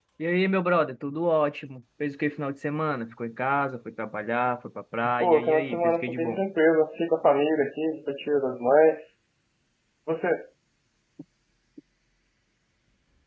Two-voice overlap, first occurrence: 5.2 s

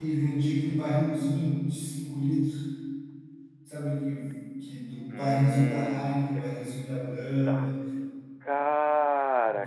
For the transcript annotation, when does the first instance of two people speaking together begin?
5.1 s

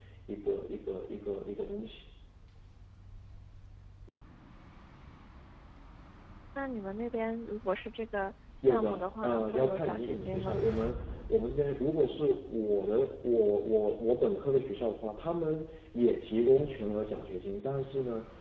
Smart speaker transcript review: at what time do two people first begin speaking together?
8.6 s

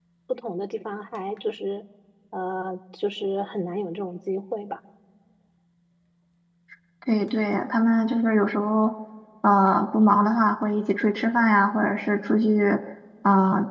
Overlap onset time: none

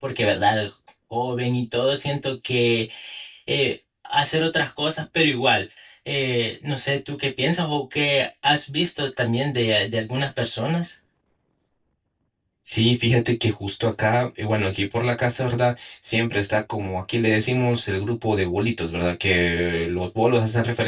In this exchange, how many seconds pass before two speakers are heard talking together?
none

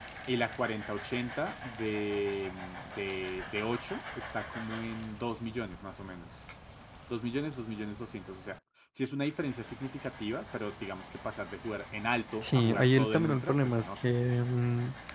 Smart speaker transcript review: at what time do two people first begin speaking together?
12.4 s

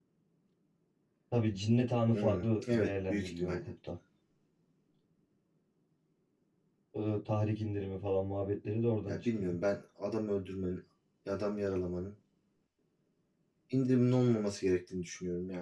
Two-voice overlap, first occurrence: 2.1 s

